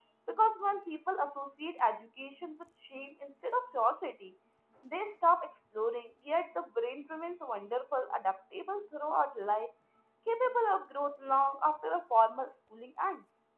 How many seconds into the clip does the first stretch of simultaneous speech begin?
none

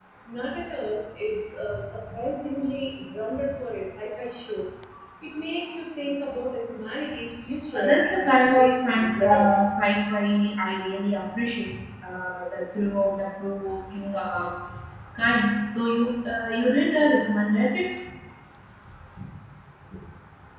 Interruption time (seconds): 8 s

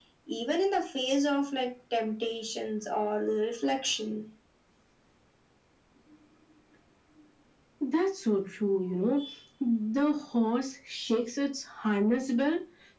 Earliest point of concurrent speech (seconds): none

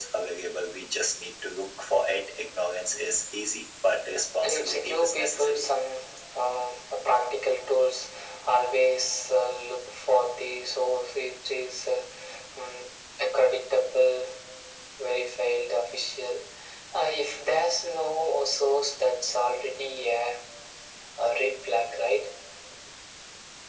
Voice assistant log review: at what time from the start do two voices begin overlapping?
4 s

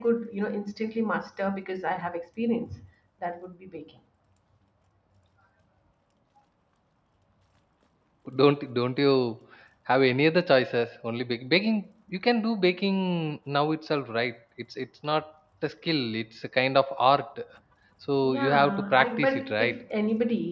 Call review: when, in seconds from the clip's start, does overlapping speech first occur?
18 s

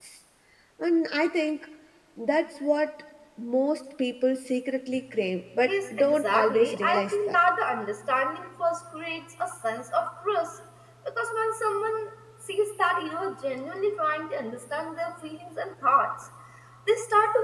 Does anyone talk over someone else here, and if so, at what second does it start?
6 s

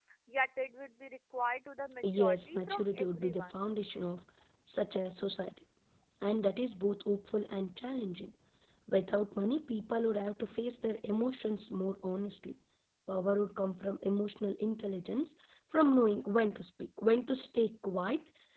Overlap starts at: 2 s

